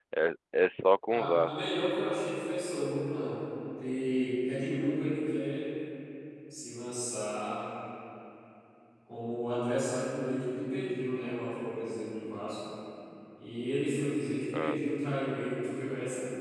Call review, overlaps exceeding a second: none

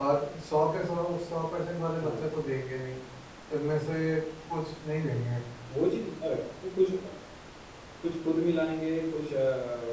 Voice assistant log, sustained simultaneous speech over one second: none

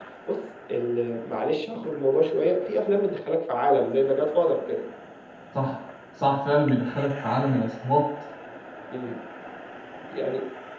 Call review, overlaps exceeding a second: none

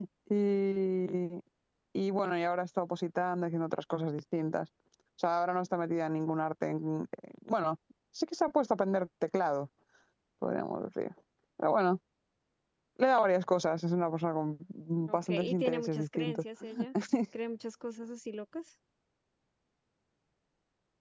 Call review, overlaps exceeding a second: present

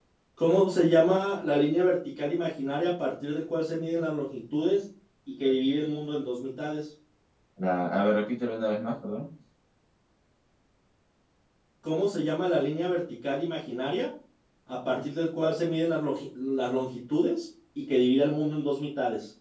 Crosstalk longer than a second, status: none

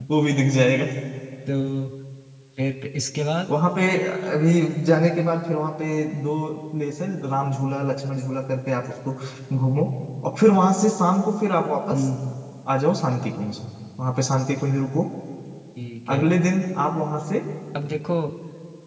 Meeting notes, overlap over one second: none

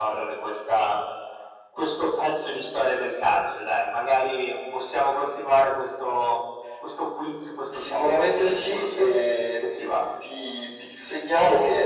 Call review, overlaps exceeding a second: present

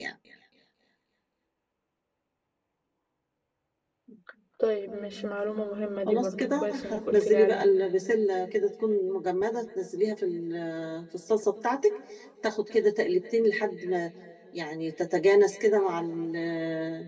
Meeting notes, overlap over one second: present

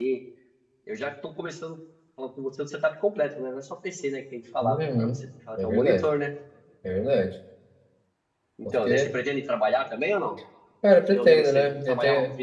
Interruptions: present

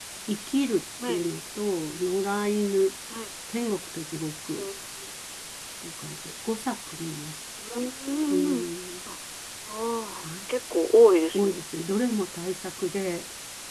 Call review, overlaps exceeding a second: none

